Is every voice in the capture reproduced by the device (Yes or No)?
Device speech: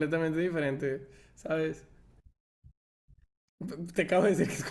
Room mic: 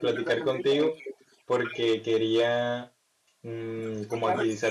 No